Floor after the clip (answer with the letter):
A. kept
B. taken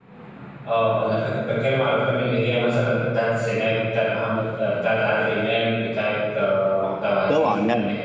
B